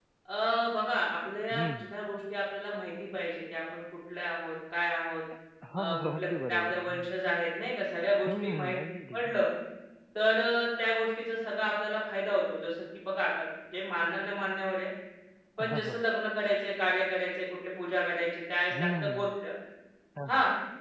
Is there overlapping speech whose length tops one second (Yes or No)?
Yes